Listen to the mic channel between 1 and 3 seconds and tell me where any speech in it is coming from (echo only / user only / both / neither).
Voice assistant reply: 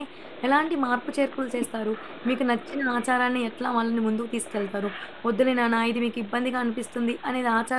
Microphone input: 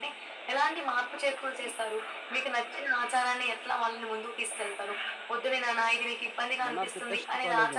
echo only